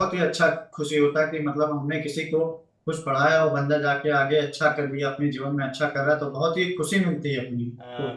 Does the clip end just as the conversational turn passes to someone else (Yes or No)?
Yes